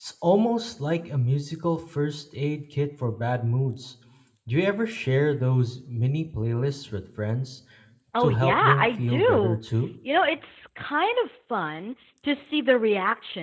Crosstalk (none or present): present